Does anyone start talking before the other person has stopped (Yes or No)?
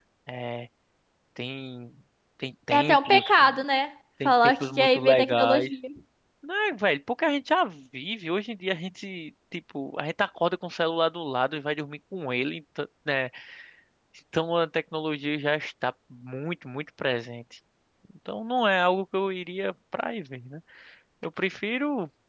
Yes